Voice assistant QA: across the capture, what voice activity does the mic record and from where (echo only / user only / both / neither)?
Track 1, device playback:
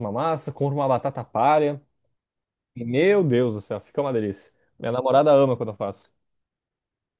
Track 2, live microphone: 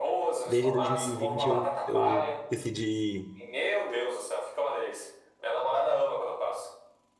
both